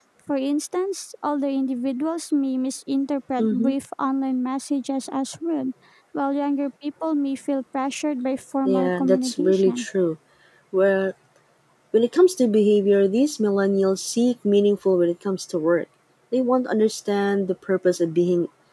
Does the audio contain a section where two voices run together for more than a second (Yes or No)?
Yes